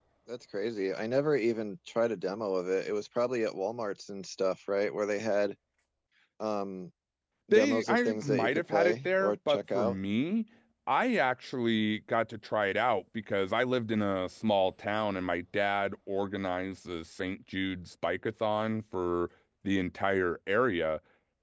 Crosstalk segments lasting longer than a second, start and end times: 7.5-10.0

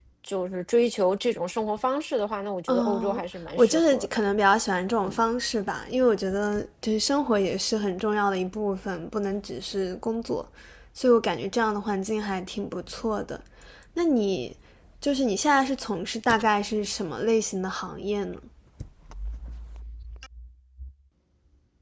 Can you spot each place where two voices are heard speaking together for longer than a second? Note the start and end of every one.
2.7-4.2

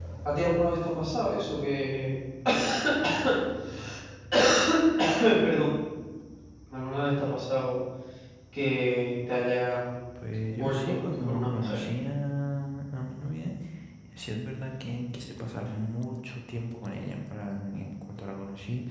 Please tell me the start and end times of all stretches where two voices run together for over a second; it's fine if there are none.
10.5-11.8

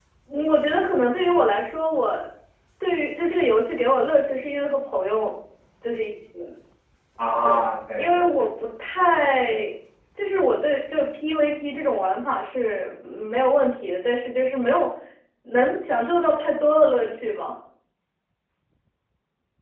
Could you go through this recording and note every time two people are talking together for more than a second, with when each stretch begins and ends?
none

